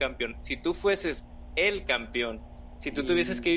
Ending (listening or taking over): listening